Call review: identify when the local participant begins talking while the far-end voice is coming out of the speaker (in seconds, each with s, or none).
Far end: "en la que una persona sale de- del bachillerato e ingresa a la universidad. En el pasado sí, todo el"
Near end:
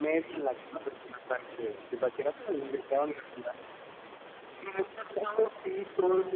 none